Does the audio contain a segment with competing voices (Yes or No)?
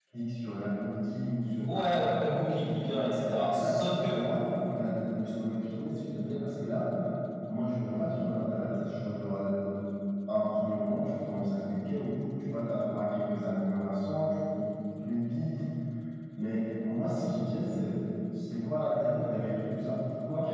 Yes